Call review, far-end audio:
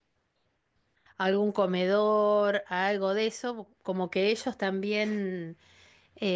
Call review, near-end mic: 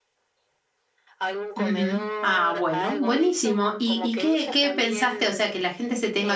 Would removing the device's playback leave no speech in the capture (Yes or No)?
No